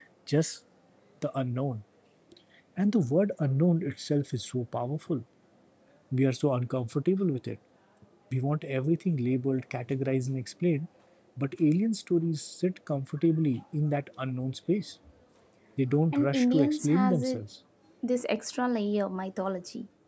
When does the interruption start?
16.1 s

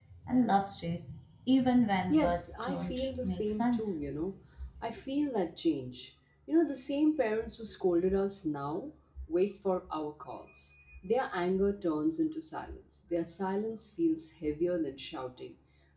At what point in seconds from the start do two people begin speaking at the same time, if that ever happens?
2.1 s

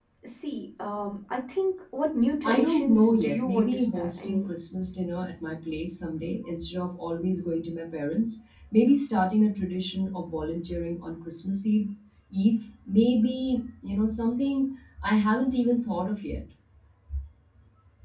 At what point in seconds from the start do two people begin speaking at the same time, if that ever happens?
2.4 s

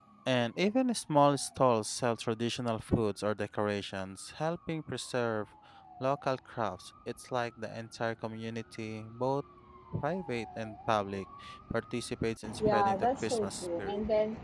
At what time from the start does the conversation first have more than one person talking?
12.6 s

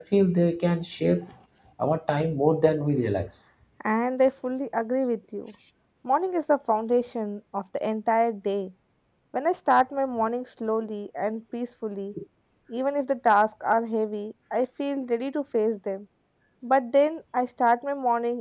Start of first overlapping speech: none

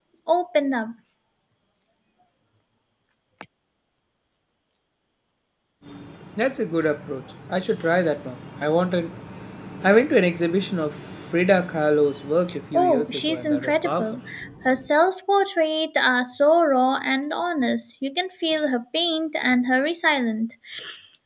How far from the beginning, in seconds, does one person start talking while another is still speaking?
12.7 s

